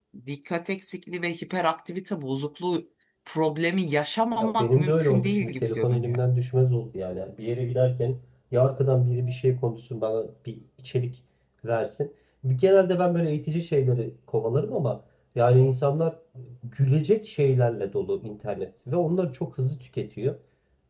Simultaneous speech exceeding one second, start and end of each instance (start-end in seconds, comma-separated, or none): 4.4-6.2